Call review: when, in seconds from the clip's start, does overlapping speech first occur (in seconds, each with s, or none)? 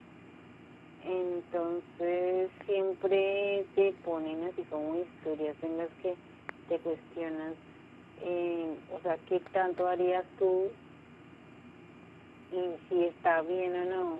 none